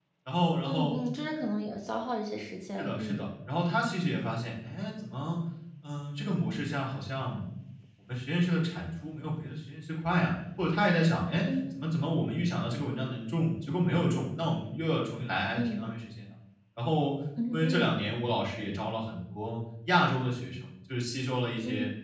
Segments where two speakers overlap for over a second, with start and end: none

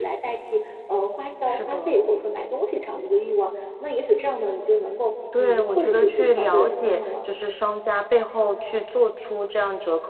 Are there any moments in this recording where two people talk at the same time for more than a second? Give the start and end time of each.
5.4-7.0

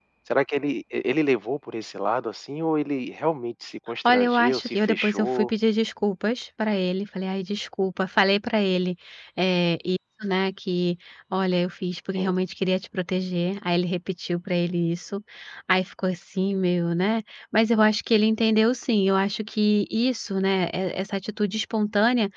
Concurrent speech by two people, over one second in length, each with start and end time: 4.0-5.5

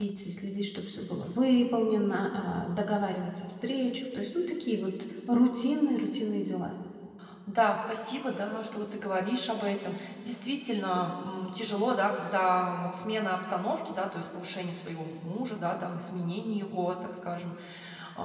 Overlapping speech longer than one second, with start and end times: none

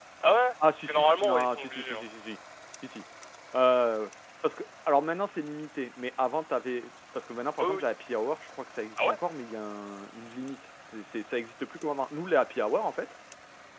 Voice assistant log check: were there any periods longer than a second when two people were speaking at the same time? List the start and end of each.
0.8-2.0

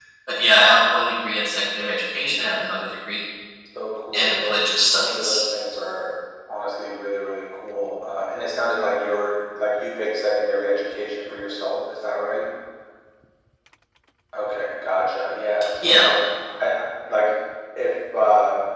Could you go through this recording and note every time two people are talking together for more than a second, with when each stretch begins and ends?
4.1-5.4

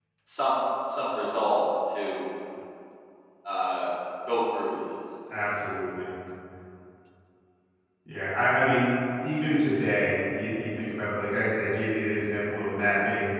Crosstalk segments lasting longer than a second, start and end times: none

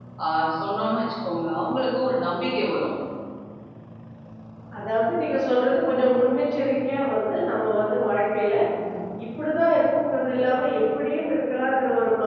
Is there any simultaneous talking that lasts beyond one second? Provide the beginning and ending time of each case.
none

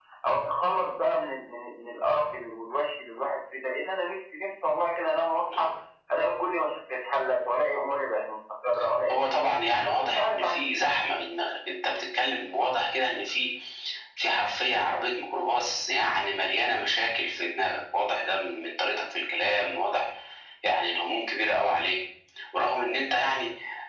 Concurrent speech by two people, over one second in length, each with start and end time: 9.1-10.9

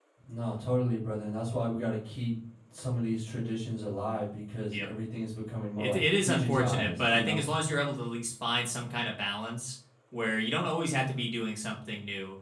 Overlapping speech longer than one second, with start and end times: 5.8-7.4

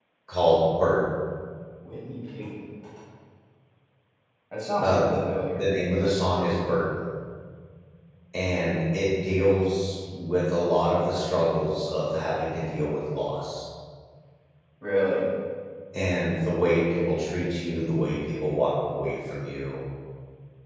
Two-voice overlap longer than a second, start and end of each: none

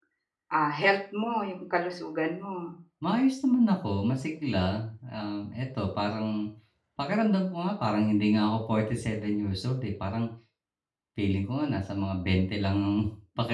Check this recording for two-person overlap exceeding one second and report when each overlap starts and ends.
none

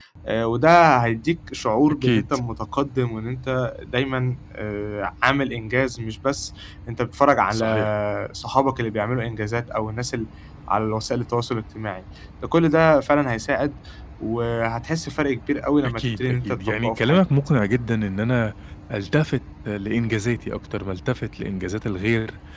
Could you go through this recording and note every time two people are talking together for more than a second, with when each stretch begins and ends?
16.0-17.2

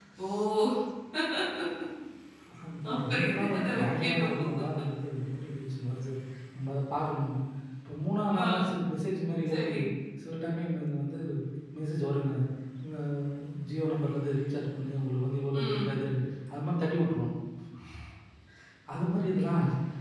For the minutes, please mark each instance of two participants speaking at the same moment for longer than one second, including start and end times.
2.9-4.3

